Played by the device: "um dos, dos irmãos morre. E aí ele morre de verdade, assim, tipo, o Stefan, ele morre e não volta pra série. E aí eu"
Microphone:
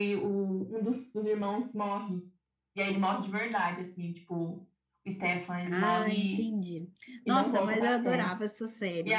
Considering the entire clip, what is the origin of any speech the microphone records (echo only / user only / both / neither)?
both